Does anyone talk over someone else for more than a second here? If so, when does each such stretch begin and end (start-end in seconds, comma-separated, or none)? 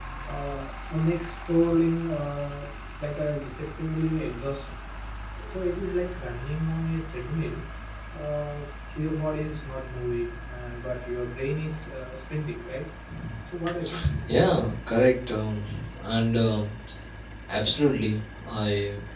none